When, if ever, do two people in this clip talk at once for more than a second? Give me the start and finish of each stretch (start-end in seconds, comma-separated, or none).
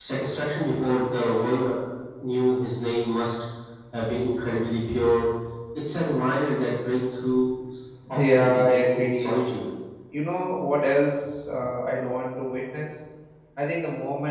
8.1-9.3